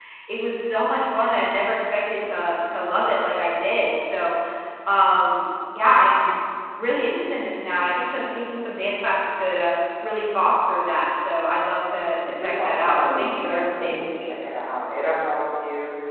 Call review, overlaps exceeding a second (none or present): present